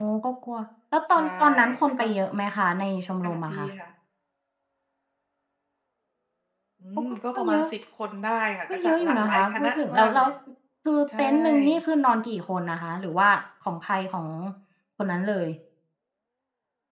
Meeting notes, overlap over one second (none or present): present